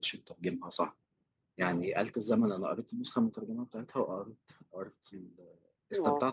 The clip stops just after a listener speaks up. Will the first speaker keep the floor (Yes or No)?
Yes